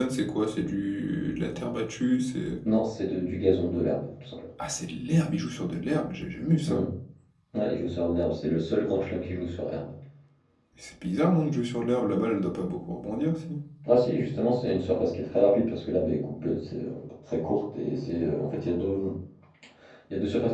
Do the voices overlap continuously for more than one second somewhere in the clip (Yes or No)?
No